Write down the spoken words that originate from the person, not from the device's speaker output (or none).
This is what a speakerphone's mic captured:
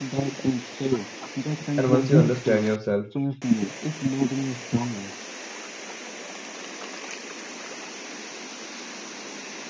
And once you understand yourself,